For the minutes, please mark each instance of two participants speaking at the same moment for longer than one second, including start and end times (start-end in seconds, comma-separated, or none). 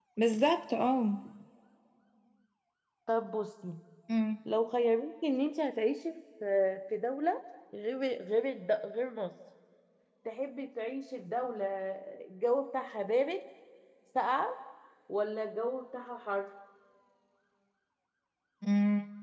none